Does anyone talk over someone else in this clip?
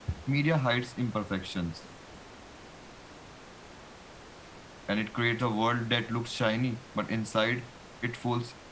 No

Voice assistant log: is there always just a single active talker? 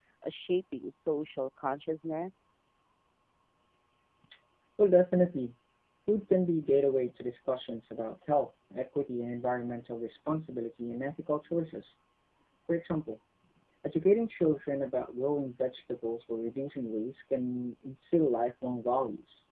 Yes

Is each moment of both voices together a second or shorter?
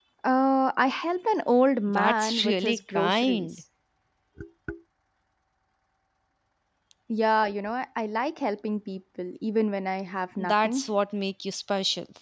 No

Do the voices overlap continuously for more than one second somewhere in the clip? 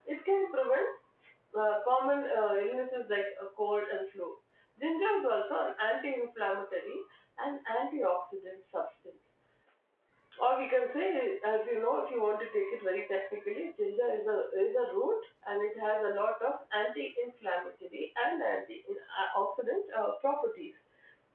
No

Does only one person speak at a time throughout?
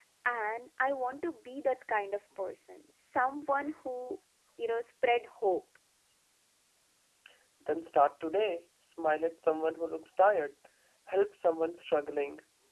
Yes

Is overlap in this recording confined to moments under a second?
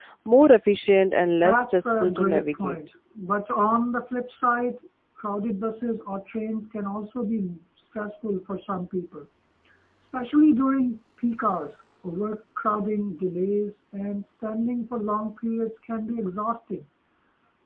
No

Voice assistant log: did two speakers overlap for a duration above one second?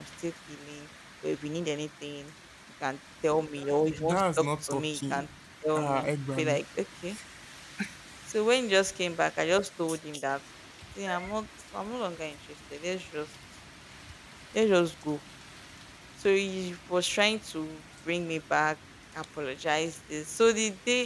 Yes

